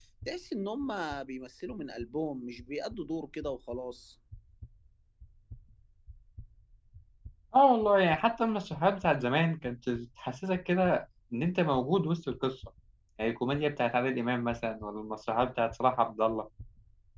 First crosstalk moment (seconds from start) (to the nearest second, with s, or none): none